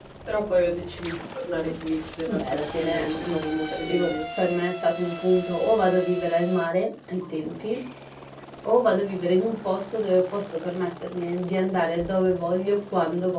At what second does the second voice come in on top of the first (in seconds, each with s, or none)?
2.4 s